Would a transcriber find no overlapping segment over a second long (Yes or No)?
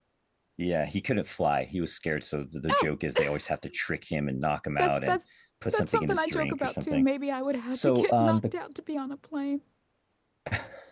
No